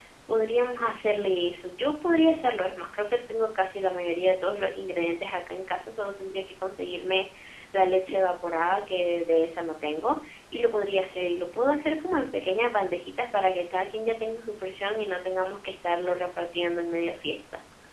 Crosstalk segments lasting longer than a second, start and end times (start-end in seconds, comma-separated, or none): none